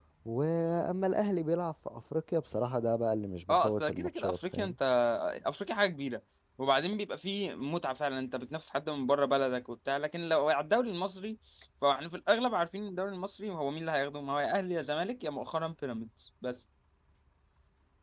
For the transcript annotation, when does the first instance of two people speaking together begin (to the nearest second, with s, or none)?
3 s